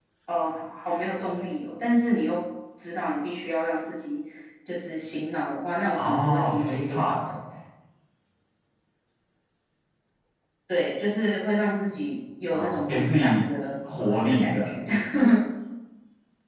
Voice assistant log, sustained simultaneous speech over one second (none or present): present